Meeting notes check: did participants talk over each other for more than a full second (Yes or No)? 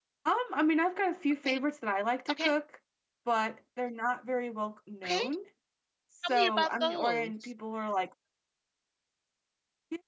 Yes